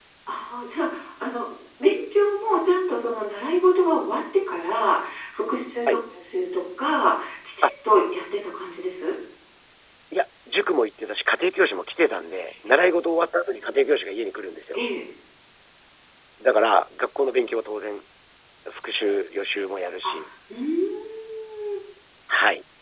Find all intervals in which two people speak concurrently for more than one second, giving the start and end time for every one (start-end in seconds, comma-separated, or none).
none